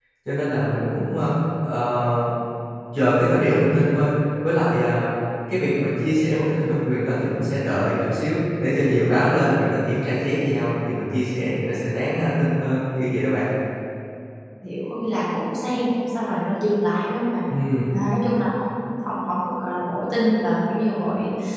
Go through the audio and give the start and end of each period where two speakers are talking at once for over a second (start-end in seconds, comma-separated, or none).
none